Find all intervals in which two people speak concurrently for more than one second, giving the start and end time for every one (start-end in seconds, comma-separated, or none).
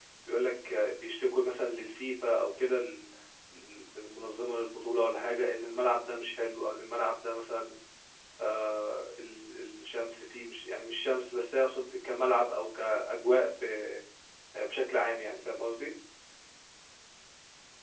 none